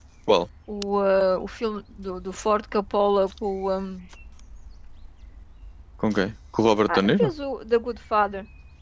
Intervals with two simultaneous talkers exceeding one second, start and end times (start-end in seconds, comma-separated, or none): none